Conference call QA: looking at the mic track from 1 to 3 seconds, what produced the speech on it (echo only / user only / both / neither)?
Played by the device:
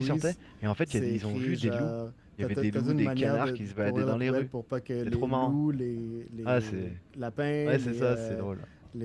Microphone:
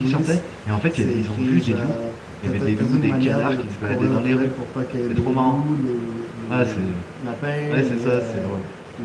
echo only